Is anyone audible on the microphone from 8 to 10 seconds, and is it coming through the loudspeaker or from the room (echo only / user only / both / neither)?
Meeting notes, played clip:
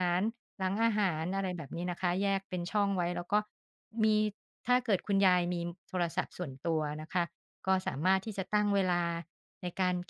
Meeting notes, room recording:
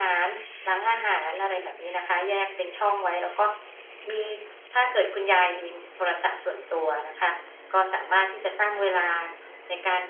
echo only